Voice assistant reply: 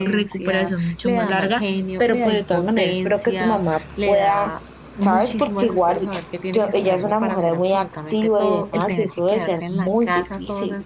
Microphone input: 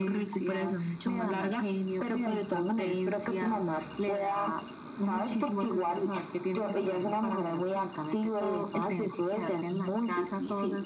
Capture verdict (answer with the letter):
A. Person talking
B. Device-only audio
B